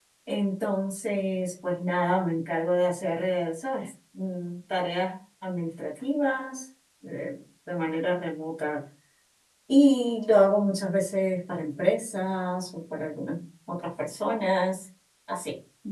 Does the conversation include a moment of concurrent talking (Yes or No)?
No